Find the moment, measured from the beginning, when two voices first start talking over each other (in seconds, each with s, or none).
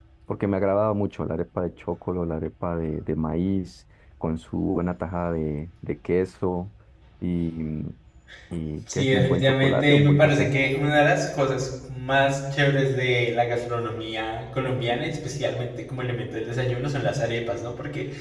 8.9 s